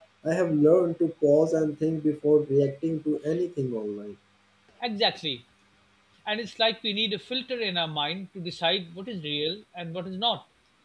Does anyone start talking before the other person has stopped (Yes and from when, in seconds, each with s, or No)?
No